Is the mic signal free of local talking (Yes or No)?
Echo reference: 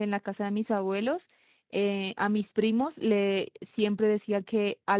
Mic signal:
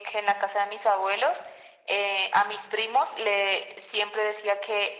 Yes